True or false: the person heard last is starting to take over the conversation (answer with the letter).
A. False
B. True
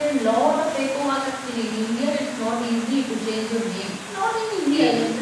A